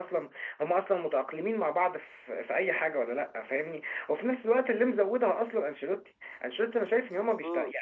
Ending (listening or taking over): listening